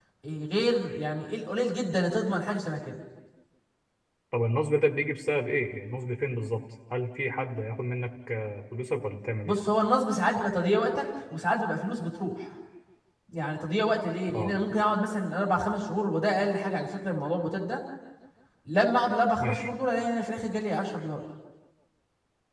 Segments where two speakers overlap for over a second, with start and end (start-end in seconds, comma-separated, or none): none